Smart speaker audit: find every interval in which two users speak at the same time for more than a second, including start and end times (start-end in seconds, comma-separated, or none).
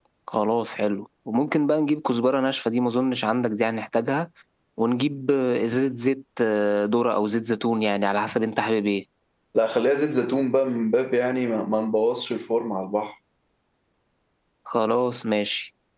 none